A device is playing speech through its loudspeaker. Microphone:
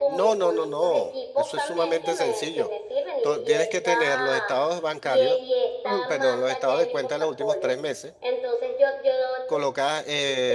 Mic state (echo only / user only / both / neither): both